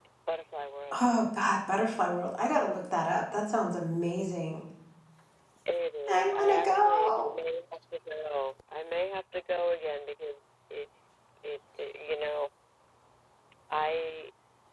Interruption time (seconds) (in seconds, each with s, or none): 6.1 s